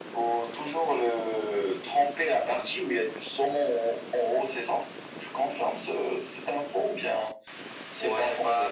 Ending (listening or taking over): taking over